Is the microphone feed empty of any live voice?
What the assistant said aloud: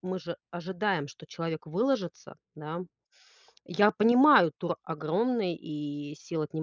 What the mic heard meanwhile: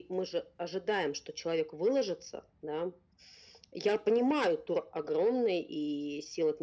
Yes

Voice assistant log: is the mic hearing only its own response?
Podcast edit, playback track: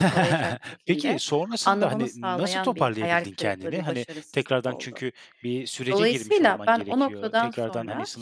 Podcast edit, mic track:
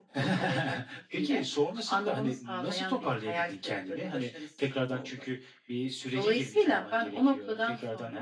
Yes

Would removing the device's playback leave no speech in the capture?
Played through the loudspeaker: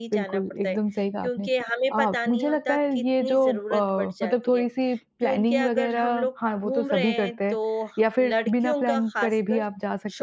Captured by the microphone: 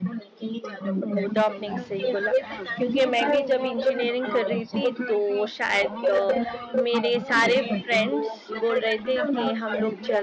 No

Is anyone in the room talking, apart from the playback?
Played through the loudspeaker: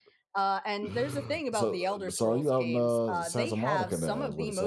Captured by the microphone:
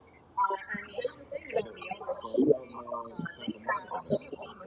No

